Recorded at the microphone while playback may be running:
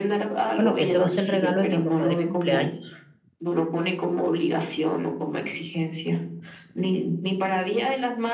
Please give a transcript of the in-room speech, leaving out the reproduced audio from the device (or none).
Bueno, que ese va a ser el regalo de mi papá de cumpleaños.